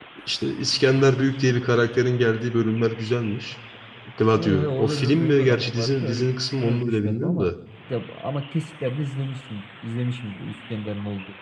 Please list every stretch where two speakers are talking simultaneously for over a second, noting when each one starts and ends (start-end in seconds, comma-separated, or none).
4.3-7.5